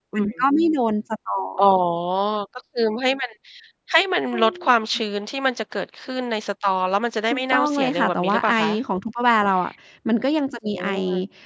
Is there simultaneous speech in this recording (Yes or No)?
Yes